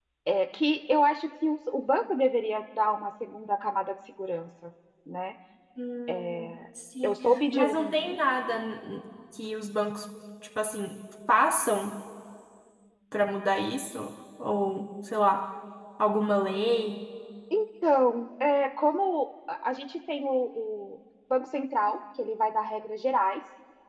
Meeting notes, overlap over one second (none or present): none